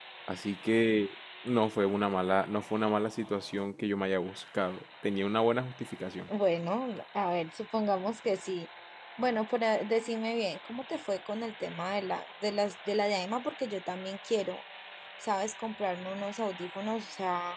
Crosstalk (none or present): none